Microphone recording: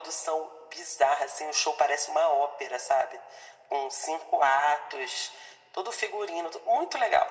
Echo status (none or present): present